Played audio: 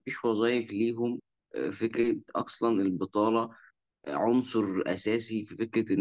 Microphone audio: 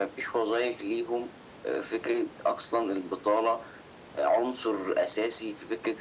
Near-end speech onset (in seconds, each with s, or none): none